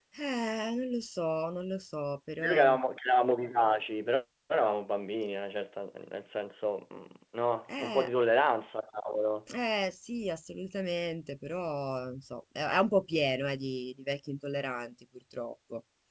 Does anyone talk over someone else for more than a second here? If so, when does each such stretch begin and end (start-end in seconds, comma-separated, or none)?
none